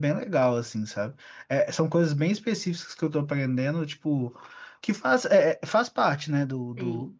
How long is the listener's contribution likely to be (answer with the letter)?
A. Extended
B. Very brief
B